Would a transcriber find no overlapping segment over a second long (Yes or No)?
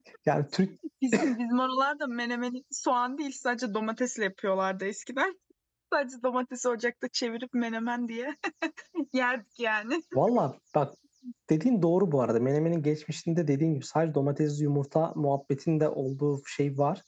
Yes